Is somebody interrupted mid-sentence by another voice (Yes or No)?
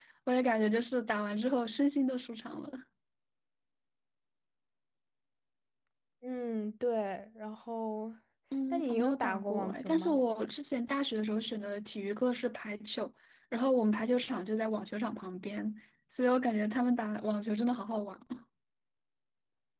Yes